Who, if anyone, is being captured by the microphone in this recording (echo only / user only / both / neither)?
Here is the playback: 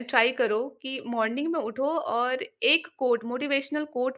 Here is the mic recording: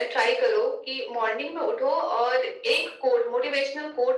echo only